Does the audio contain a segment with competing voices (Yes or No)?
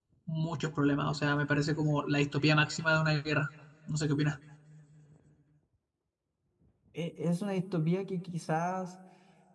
No